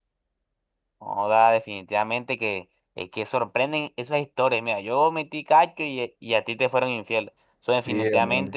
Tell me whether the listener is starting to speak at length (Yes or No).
No